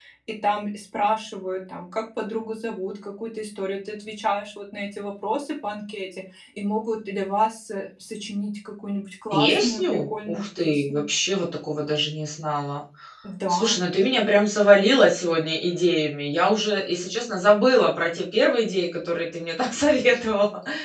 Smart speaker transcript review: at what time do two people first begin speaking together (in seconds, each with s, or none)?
9.3 s